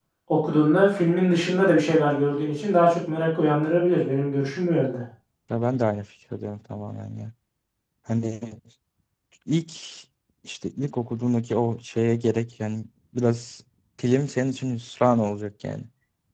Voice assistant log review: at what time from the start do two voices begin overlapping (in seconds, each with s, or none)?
none